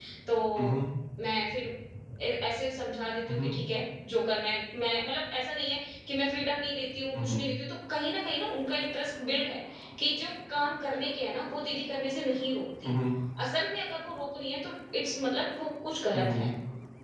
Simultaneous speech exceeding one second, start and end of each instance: none

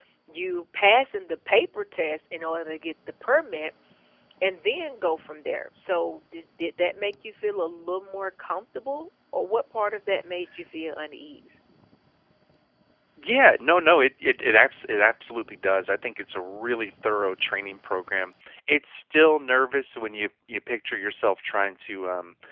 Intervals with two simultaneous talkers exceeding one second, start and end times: none

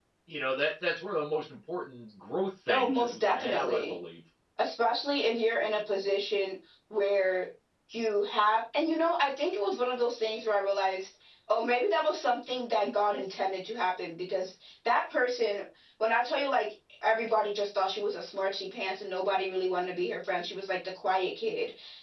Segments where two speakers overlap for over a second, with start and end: 2.7-4.0

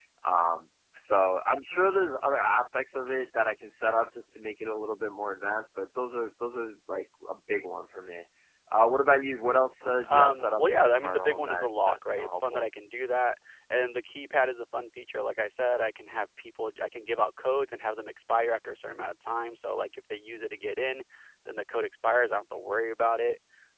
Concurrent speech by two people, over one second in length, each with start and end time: 10.1-12.7

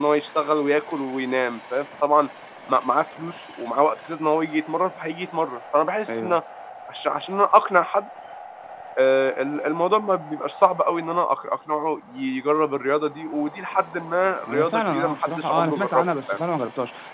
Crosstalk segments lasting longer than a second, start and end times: 14.5-16.4

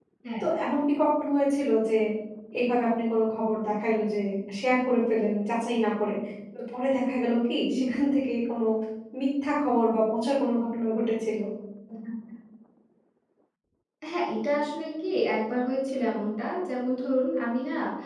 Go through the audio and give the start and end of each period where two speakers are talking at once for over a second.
none

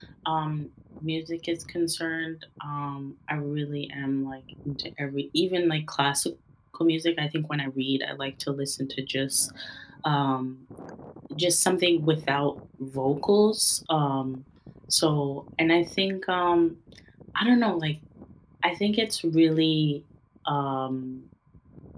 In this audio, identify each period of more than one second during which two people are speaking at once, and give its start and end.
none

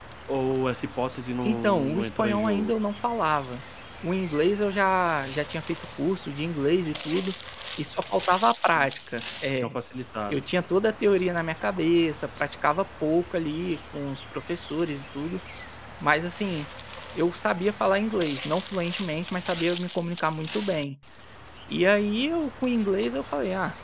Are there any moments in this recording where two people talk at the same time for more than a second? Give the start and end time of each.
1.4-2.7

